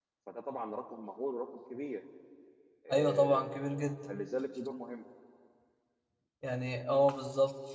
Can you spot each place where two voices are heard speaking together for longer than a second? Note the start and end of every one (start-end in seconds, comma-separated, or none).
2.9-4.2